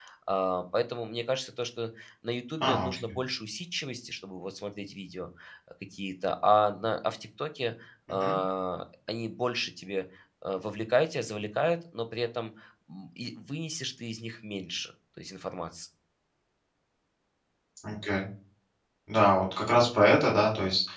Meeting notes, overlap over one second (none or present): none